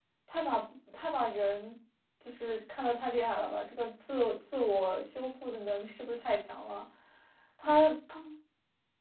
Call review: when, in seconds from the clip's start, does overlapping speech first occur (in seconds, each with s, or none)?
none